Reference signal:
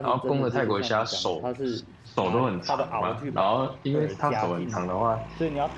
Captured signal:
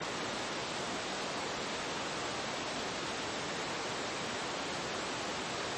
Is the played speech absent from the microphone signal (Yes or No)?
Yes